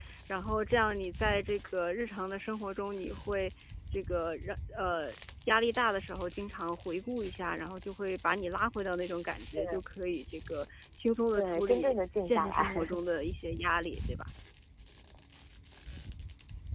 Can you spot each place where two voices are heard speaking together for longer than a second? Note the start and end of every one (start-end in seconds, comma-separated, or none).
11.3-13.0